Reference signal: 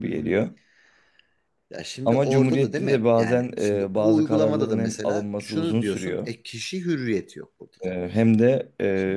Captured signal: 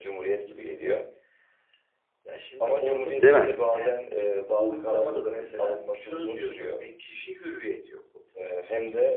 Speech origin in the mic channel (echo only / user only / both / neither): both